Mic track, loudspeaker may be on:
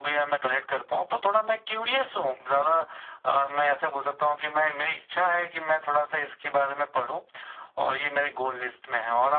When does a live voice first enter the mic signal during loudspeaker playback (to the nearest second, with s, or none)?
none